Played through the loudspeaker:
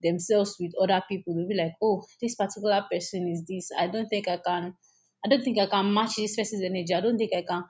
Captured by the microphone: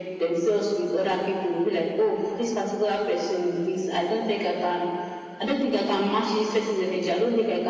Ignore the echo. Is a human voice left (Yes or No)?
No